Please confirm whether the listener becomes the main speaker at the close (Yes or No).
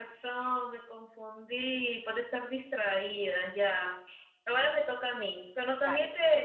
No